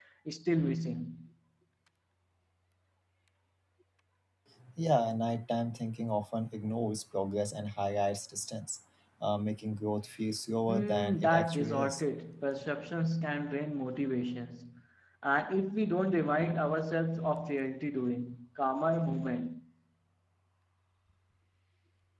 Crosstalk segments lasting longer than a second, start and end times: 10.7-12.0

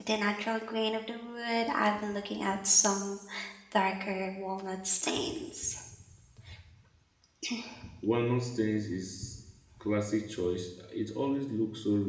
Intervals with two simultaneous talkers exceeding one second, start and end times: none

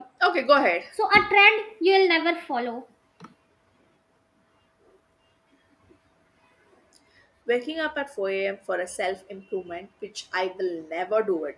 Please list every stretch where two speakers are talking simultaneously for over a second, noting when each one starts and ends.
none

